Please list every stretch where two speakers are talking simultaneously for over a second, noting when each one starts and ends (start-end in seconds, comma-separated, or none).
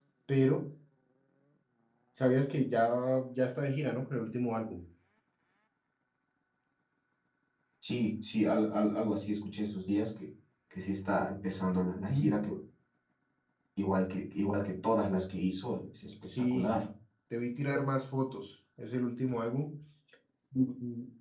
none